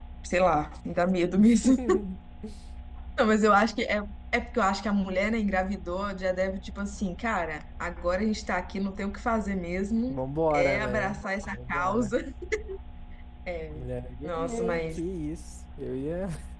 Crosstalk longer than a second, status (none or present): present